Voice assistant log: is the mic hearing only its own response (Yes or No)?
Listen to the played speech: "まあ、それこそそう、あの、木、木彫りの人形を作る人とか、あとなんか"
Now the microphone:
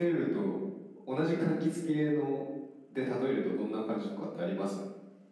No